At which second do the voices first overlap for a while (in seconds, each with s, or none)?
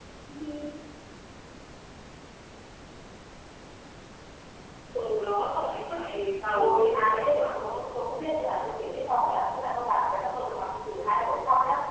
6.6 s